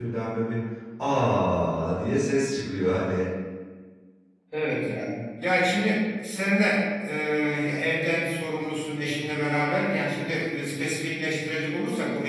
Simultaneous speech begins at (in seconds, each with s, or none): none